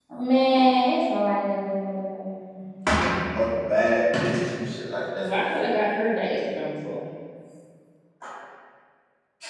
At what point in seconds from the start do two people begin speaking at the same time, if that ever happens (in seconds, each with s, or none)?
none